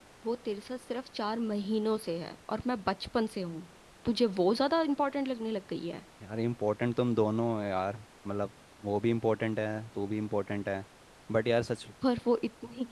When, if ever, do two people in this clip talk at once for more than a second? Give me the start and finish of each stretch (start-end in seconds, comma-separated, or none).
none